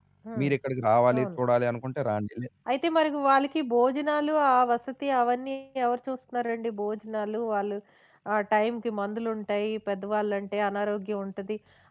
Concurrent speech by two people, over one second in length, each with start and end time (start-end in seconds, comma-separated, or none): none